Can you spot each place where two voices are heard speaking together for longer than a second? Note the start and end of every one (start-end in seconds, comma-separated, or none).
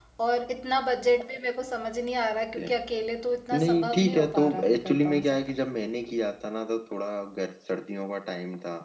3.5-5.4